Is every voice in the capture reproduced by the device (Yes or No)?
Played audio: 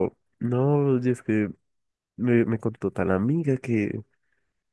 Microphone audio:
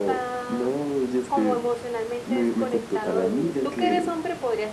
No